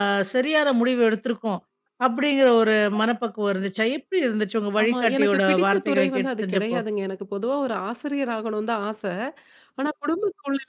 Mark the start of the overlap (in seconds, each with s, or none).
4.8 s